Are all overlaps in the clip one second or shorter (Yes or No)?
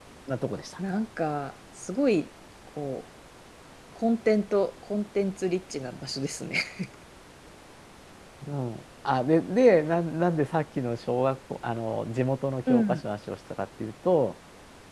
Yes